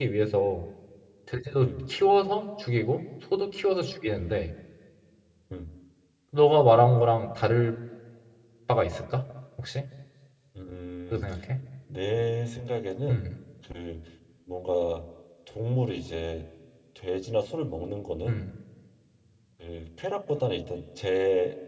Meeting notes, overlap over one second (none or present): none